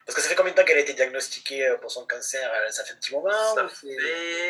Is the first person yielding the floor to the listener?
Yes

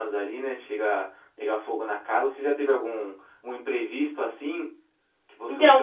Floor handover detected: Yes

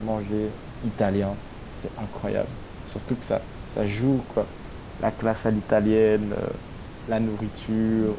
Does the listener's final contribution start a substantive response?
Yes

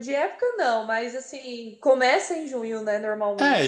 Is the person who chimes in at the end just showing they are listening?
No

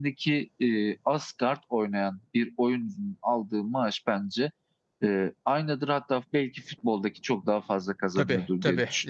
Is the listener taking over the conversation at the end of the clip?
Yes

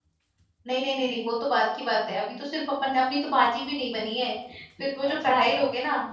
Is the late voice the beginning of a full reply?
No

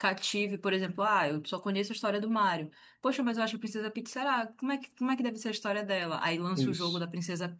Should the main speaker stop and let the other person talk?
No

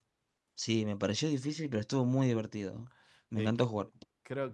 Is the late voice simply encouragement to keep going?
No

